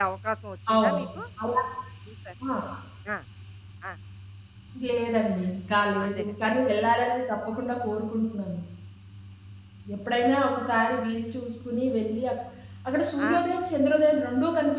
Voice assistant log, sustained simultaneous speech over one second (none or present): none